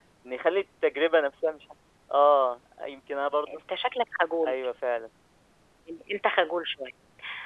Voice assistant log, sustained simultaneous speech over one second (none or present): none